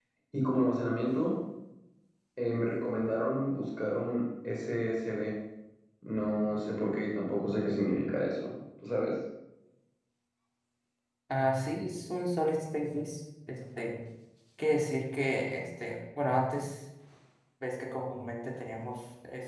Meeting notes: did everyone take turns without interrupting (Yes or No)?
Yes